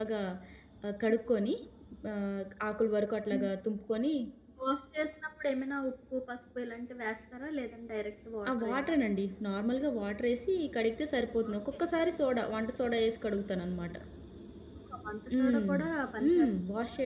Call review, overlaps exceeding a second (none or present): none